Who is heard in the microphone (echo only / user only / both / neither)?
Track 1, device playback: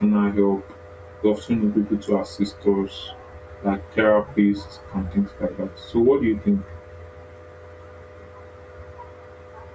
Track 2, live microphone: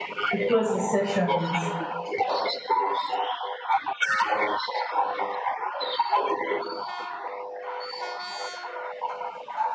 both